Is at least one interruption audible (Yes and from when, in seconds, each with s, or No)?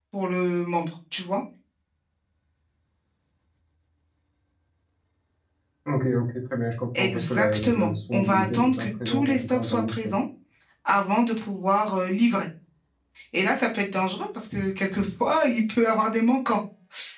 Yes, from 7.0 s